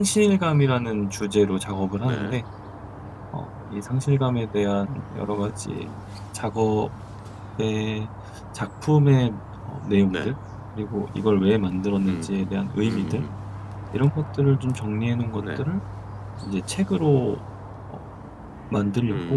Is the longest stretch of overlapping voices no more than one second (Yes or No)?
Yes